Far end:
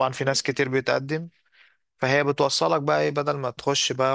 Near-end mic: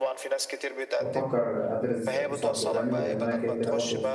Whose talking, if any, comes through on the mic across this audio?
both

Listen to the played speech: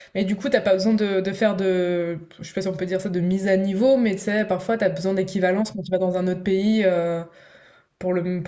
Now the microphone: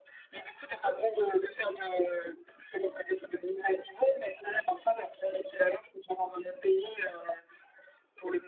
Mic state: echo only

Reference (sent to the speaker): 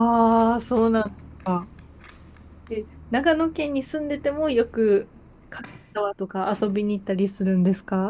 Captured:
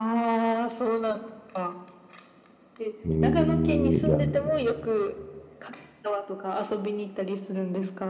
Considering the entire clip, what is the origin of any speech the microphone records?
both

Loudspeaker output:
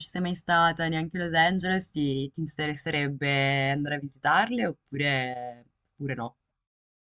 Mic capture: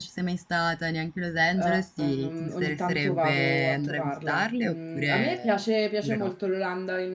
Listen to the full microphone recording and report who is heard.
both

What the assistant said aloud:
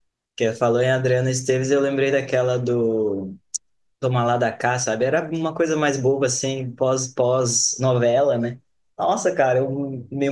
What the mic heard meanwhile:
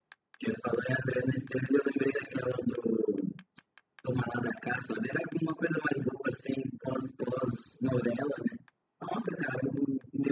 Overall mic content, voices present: echo only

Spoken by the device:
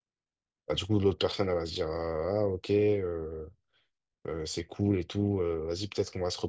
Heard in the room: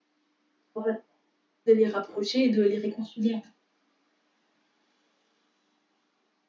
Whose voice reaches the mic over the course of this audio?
user only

